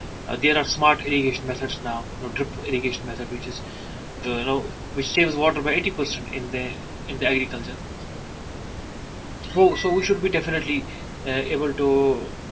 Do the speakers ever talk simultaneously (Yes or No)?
No